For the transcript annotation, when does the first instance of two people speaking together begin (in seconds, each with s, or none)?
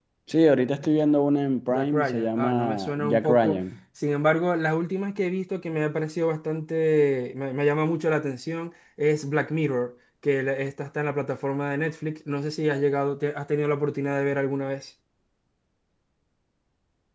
1.7 s